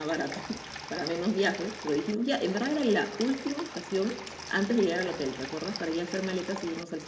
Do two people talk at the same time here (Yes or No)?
No